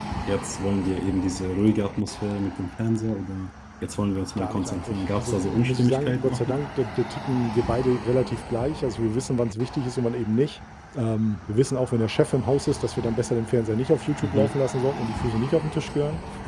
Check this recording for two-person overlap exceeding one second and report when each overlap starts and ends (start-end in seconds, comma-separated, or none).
4.4-6.6